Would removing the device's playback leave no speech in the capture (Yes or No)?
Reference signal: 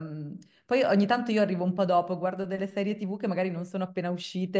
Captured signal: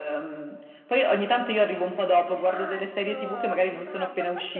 No